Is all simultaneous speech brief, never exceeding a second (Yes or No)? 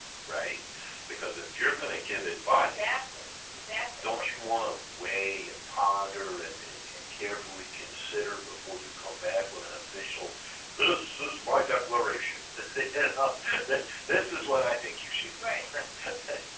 Yes